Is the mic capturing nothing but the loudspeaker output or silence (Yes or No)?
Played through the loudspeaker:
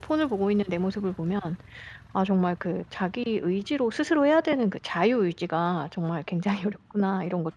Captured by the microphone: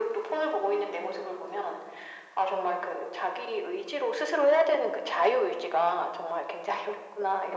Yes